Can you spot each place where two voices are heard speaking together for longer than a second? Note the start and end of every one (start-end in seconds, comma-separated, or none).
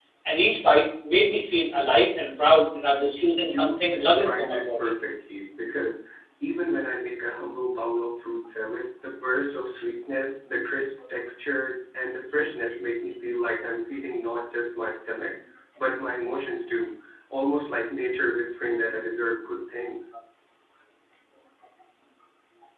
3.4-5.0